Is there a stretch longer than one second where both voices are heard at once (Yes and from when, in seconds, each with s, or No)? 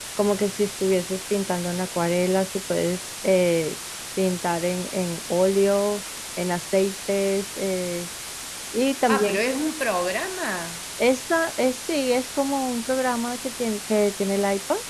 No